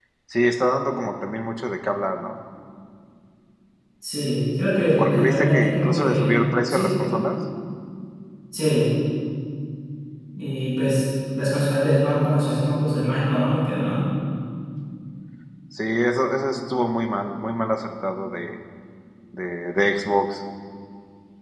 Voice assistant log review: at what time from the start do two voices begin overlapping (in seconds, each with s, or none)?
5.0 s